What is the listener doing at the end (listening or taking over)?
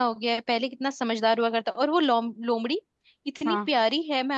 listening